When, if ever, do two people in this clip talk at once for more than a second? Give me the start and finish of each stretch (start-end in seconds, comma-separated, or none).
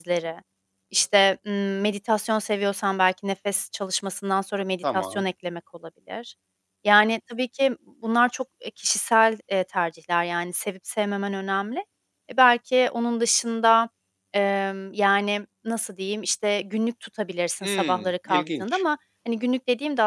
17.6-18.8